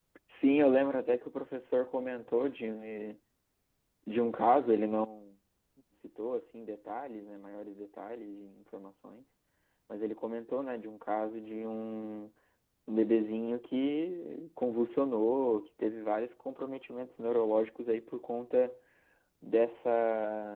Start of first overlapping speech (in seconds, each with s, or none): none